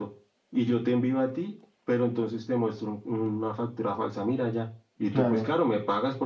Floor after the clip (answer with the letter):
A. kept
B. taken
A